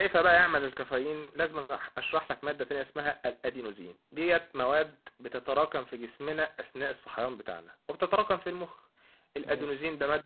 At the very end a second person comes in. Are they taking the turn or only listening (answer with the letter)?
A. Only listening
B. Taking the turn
A